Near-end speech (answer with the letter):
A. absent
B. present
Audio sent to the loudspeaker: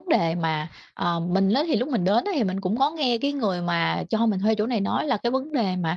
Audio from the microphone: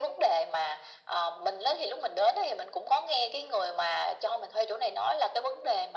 A